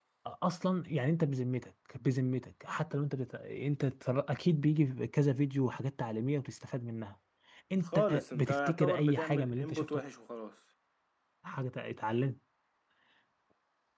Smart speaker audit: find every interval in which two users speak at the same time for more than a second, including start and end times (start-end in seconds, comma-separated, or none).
7.8-9.8